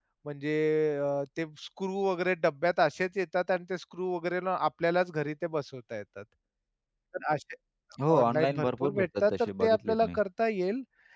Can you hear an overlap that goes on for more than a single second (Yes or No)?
Yes